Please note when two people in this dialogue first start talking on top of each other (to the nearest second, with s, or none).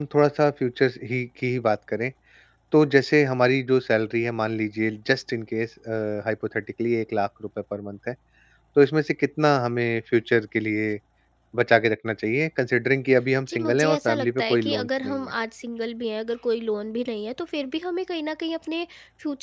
13 s